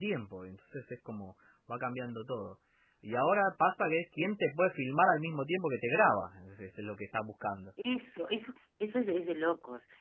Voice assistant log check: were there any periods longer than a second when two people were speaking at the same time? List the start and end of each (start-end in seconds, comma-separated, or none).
none